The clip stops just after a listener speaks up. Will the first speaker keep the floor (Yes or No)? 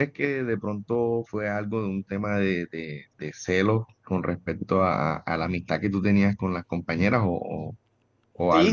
No